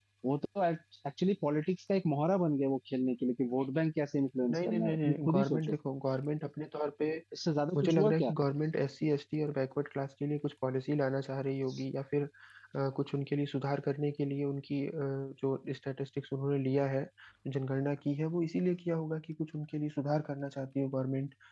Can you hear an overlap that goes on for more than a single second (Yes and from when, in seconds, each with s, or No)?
Yes, from 4.5 s